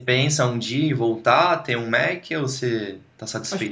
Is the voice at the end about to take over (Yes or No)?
Yes